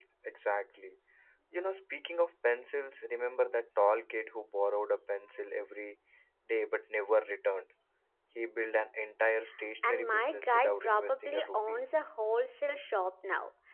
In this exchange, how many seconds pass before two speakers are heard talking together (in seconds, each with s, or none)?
9.8 s